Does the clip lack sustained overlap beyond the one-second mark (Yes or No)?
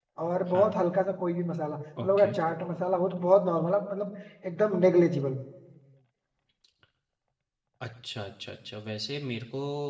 Yes